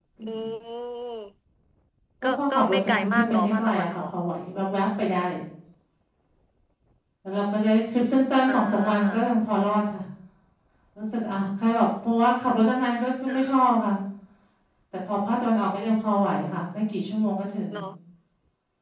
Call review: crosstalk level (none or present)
present